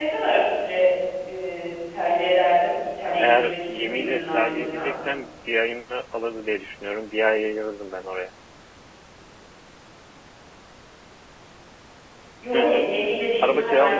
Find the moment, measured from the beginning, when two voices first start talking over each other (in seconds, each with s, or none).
3.2 s